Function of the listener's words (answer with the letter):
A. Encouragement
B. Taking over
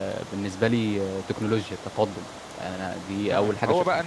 B